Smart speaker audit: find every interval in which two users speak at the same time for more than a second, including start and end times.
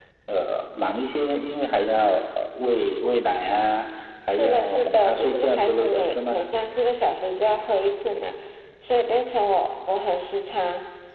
4.4-6.5

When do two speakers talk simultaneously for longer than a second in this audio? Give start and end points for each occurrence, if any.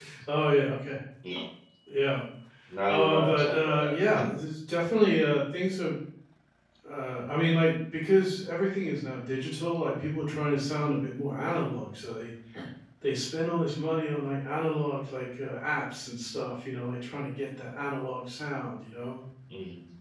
2.9-4.3

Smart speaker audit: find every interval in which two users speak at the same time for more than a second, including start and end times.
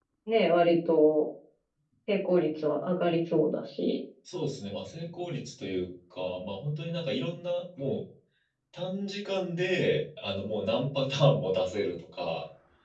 none

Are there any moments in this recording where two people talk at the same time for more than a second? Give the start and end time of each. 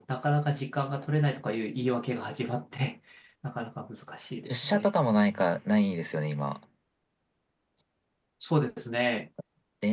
none

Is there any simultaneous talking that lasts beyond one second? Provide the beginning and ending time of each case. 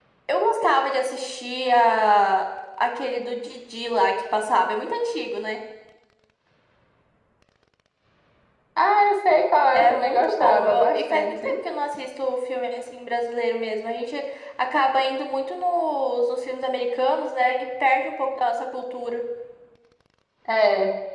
9.7-11.6

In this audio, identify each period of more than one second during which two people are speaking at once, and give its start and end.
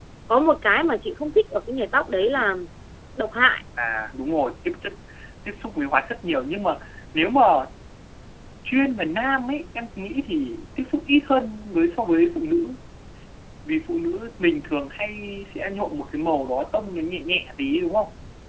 none

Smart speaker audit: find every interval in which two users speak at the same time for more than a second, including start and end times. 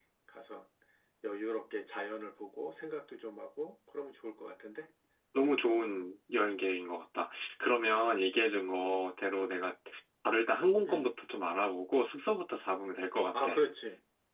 none

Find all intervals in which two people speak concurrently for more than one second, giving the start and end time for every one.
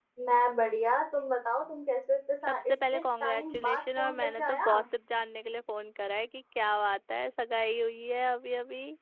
2.5-4.7

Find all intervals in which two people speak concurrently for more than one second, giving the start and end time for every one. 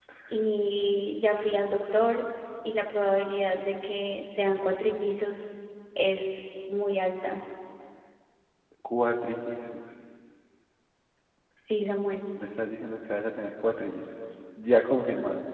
none

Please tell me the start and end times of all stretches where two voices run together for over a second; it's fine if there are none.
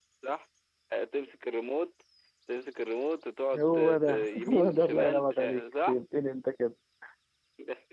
3.6-6.0

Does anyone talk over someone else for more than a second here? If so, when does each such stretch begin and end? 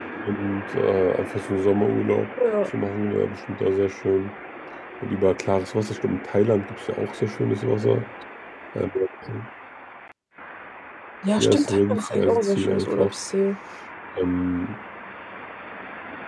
11.4-13.1

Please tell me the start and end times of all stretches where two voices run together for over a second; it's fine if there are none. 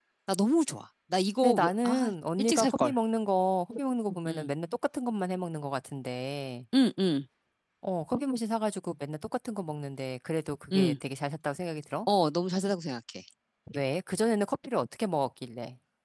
1.4-2.9

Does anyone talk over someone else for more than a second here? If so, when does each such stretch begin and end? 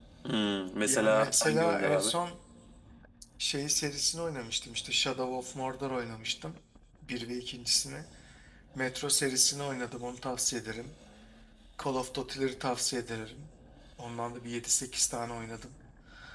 0.8-2.1

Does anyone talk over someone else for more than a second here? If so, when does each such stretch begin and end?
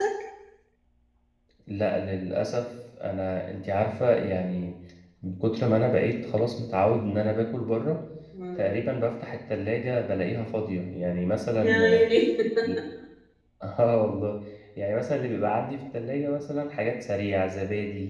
none

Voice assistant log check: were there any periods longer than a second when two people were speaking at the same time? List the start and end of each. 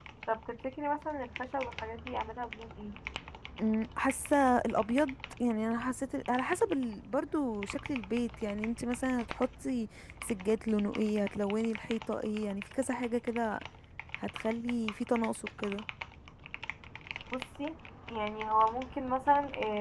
none

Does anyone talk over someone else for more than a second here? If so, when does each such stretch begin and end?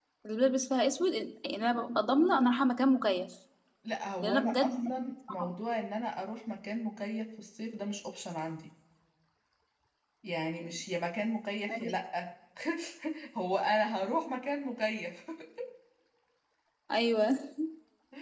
4.2-5.5

